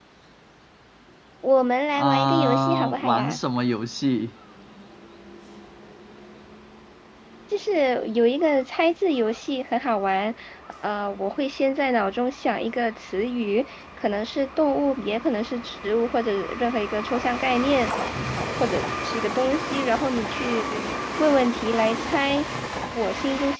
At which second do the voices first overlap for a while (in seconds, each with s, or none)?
2.0 s